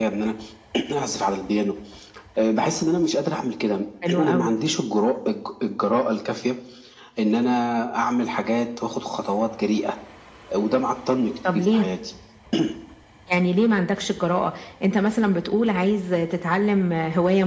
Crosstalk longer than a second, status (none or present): none